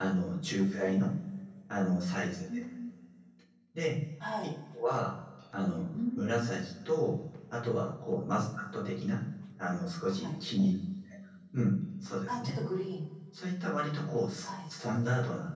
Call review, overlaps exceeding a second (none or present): none